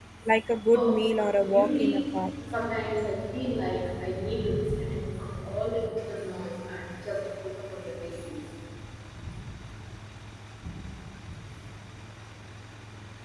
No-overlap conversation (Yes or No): No